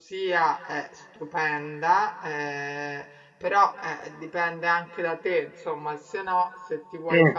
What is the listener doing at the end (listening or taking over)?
listening